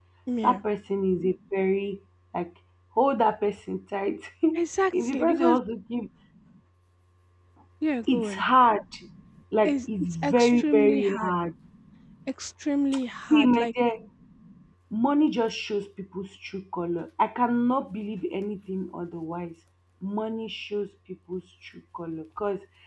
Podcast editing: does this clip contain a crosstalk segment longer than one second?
Yes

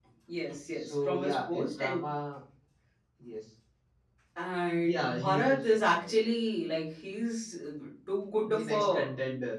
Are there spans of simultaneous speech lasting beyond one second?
Yes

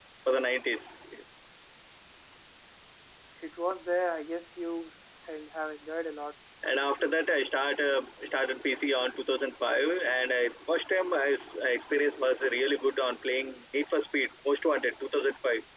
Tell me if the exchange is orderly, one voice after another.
Yes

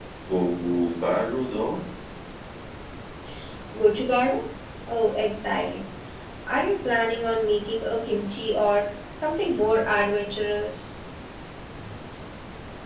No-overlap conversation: Yes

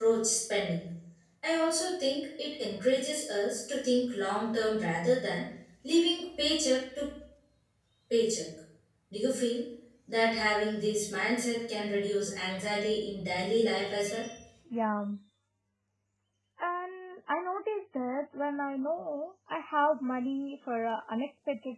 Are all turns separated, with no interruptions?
Yes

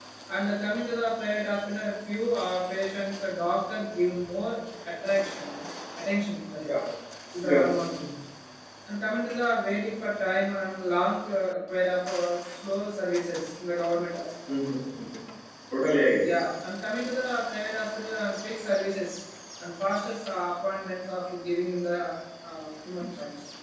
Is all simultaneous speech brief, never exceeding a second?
Yes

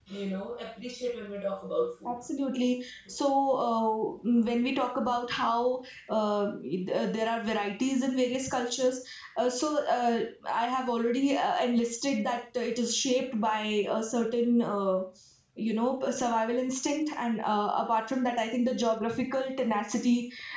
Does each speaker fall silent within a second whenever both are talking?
Yes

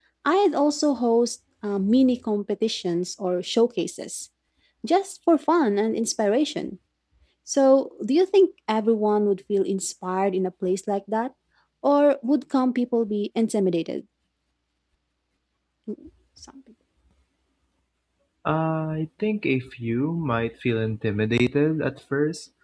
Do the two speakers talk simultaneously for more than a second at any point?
No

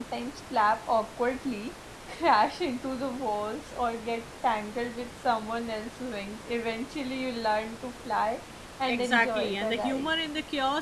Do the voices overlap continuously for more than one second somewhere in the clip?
Yes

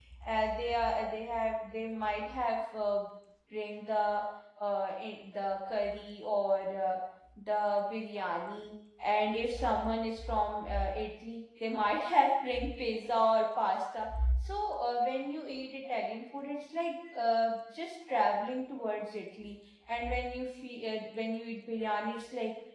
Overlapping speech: No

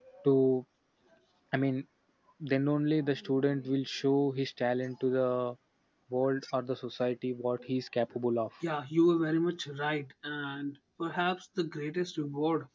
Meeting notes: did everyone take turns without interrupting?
Yes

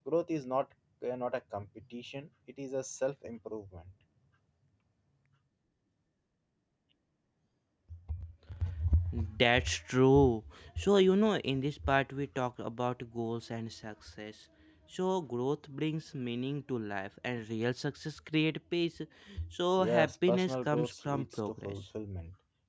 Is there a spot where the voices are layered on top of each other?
Yes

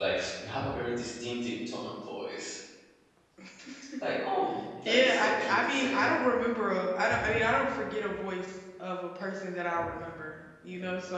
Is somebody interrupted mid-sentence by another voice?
Yes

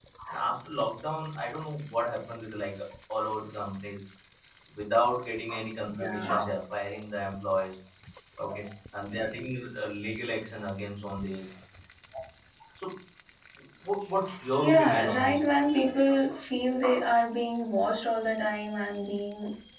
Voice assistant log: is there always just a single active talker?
No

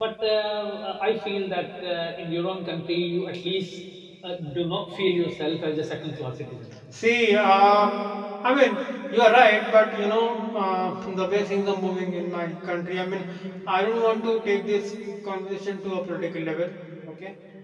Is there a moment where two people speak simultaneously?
No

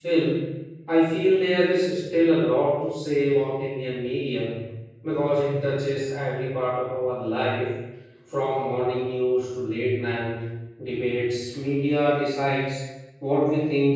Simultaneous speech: No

